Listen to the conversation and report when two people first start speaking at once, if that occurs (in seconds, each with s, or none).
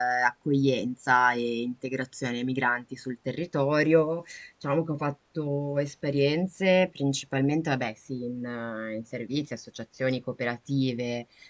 none